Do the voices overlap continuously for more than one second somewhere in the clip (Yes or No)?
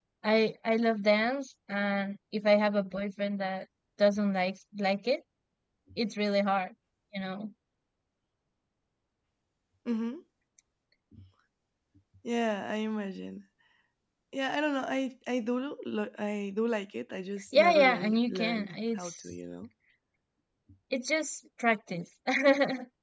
Yes